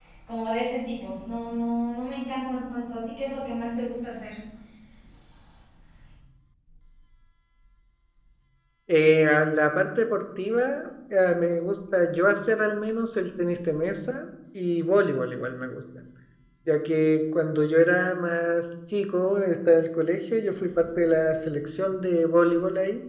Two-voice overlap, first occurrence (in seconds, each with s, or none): none